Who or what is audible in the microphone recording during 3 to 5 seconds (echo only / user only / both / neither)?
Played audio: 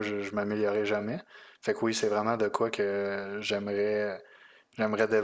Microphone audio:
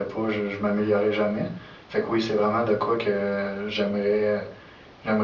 echo only